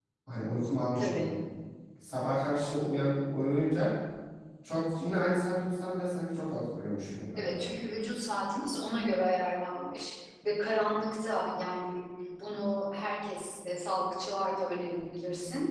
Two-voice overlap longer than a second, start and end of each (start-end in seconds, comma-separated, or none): none